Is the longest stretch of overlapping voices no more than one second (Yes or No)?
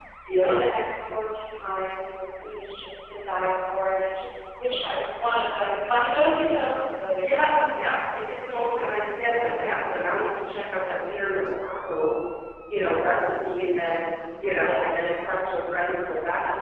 Yes